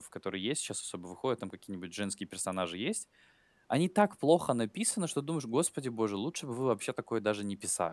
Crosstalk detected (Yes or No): No